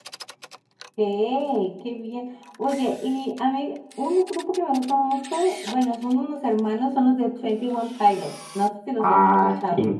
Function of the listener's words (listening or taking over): taking over